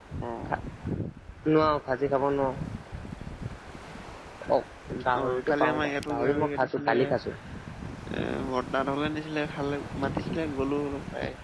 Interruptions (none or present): present